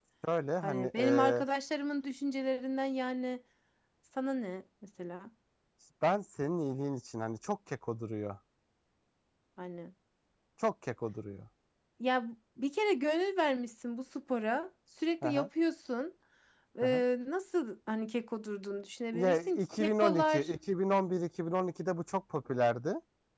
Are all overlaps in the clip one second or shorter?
No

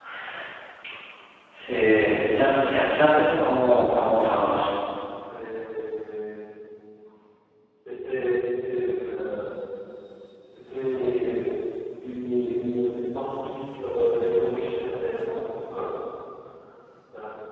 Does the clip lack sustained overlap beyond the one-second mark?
Yes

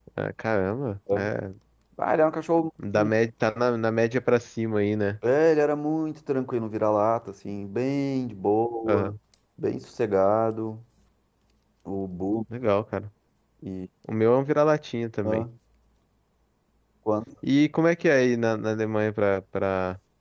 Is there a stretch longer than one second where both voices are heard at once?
No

